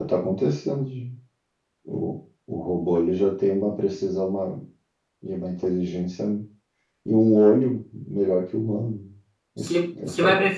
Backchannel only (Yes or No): No